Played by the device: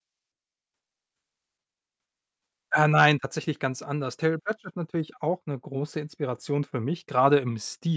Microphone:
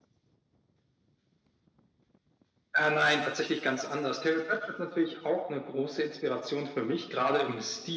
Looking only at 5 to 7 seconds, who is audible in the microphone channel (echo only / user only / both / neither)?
echo only